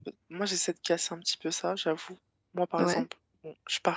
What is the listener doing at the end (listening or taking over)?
listening